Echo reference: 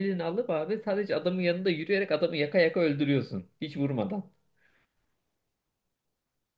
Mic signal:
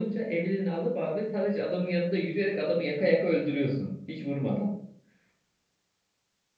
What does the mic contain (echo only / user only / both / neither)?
echo only